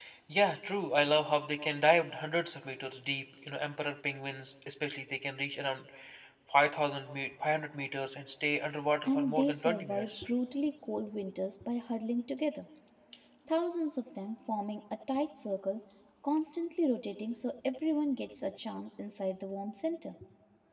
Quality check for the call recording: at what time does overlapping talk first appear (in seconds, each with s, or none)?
9.0 s